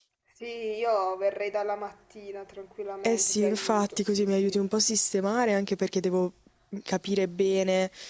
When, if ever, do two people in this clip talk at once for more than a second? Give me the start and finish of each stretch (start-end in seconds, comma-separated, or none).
3.0-4.6